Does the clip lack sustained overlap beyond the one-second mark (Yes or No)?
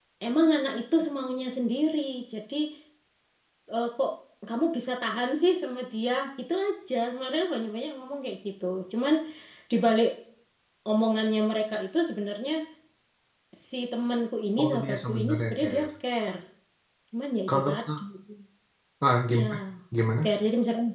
No